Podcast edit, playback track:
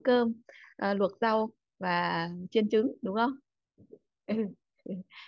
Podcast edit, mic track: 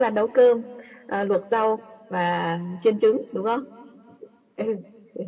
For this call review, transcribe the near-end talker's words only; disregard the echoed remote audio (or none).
none